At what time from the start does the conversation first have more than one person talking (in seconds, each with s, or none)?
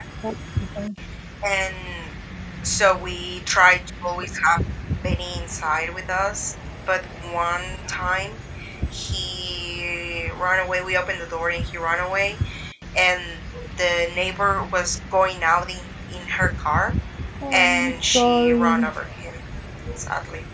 17.5 s